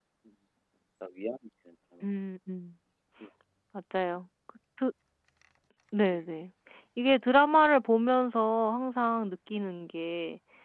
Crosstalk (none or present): none